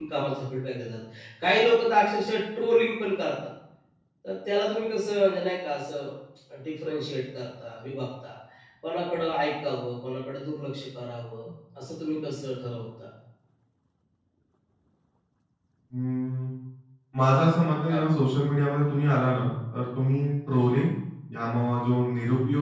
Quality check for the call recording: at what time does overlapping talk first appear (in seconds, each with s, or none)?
none